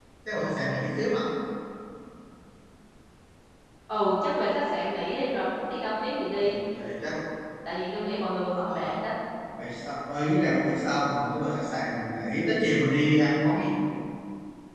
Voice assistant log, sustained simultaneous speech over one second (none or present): none